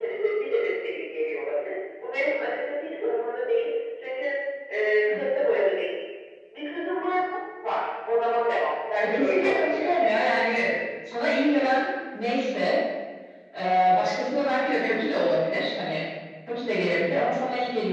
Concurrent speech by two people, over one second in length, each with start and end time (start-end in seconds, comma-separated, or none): 9.0-10.2